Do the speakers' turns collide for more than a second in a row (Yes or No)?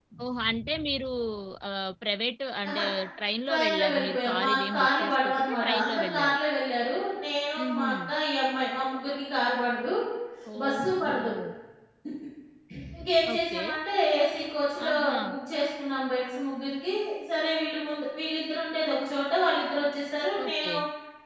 Yes